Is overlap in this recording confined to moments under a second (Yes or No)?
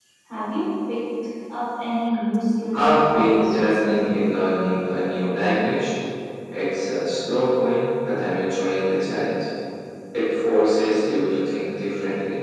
No